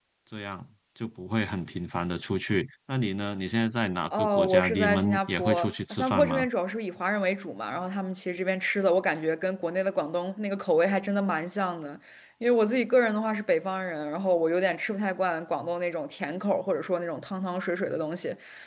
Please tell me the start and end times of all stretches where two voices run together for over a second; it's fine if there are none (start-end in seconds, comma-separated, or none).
4.2-6.5